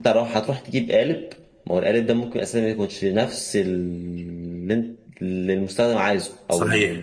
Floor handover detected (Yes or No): Yes